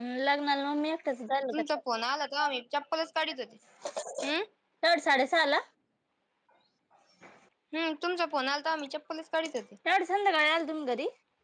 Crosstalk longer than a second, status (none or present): none